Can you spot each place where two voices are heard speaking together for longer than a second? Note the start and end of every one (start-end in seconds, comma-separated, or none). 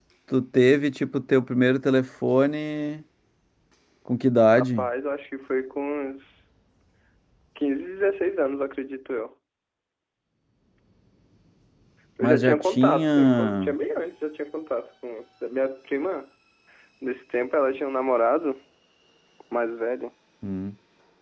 12.2-13.7